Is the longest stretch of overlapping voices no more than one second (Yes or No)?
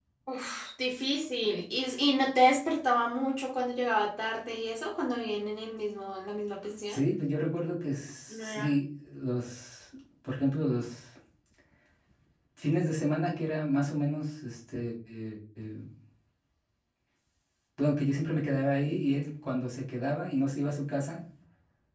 Yes